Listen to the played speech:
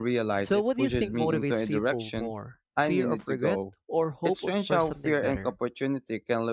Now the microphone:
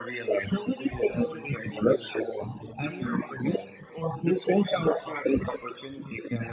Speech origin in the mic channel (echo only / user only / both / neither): echo only